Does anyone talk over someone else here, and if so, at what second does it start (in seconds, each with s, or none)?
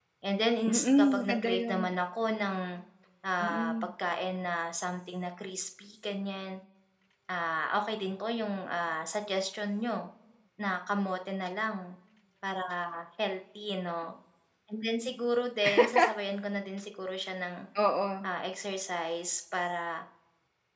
0.7 s